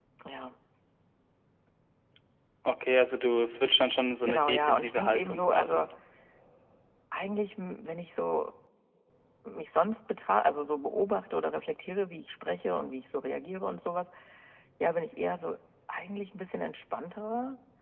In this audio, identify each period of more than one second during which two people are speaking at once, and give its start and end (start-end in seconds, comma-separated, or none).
4.2-5.8